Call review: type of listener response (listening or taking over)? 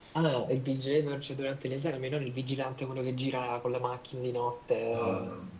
listening